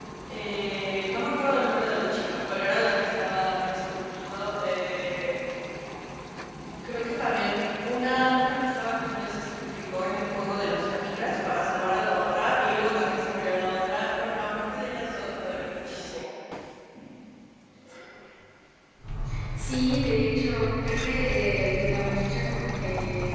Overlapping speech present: No

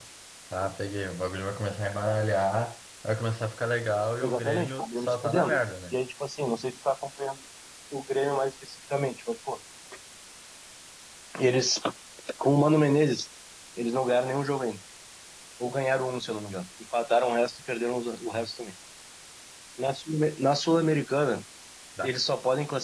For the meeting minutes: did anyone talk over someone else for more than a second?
Yes, from 4.2 s

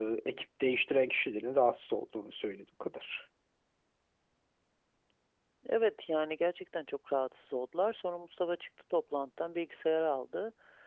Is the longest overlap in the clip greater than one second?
No

